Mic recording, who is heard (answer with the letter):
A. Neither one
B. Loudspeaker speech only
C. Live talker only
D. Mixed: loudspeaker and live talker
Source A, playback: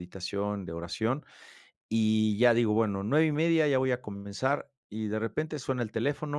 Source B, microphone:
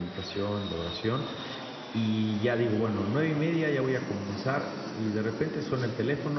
B